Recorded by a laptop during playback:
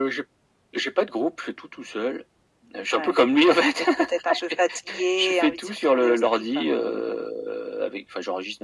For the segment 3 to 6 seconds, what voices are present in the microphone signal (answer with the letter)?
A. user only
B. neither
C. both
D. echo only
D